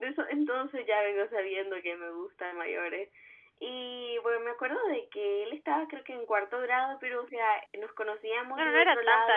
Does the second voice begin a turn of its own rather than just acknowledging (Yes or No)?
Yes